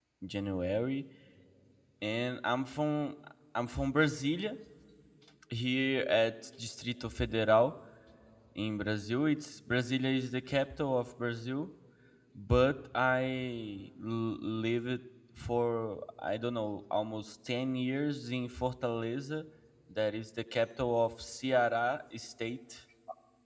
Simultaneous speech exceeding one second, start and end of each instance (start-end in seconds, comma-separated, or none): none